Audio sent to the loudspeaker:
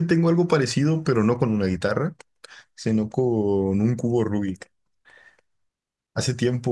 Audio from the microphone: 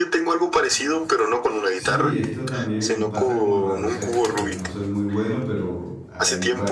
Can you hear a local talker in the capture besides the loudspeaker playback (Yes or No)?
Yes